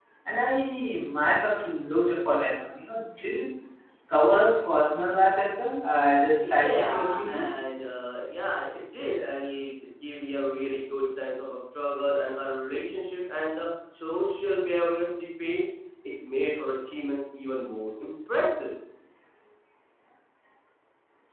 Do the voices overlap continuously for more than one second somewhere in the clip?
Yes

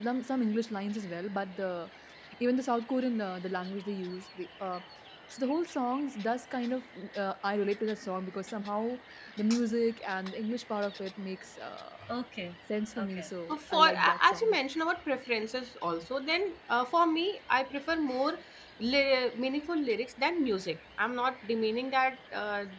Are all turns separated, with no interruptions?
No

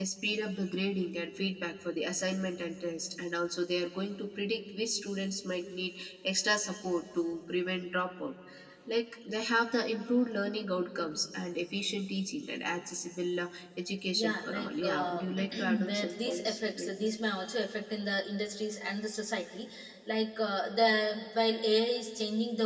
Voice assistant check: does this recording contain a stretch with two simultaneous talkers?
Yes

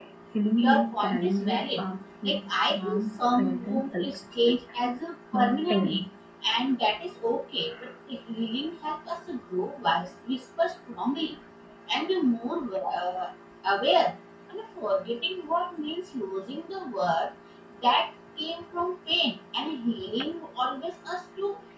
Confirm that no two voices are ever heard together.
No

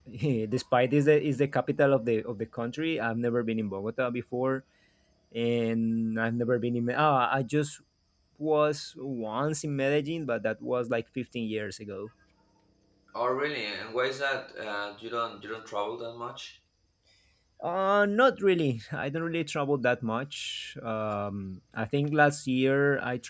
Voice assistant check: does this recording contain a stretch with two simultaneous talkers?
No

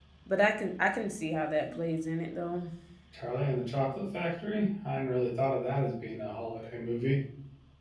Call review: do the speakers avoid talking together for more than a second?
Yes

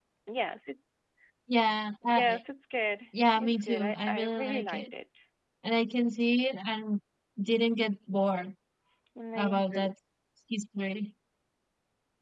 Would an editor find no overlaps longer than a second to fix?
No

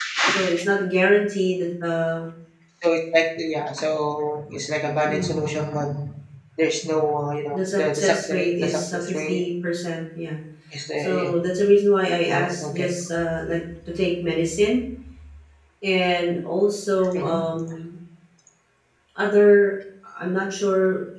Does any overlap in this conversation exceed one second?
Yes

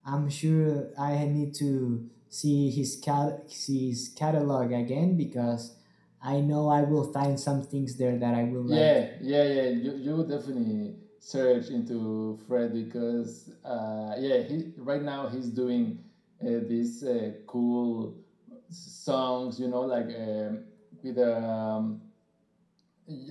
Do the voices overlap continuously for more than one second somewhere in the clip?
No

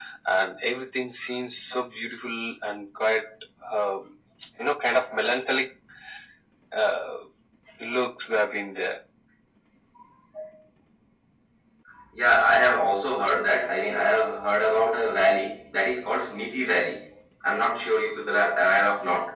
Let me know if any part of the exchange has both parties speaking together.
No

